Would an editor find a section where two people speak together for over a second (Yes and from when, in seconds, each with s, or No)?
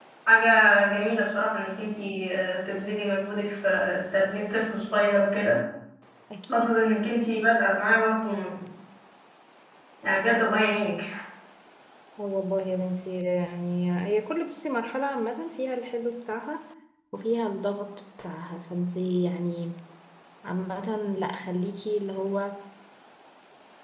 No